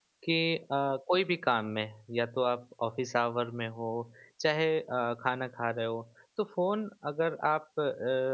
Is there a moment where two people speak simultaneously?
No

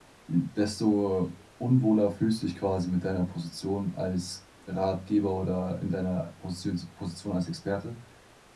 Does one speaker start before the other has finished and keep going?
No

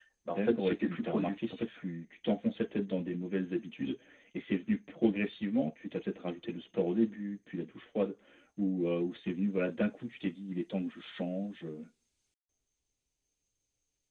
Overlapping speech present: Yes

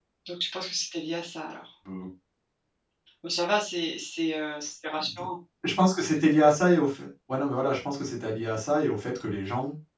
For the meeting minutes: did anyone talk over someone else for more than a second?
No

